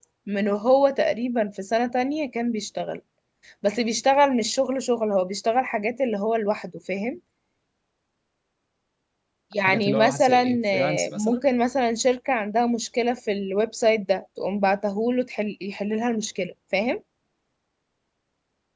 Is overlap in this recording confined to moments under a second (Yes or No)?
No